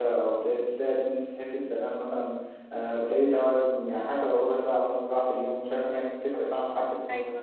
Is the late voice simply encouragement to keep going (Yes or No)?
No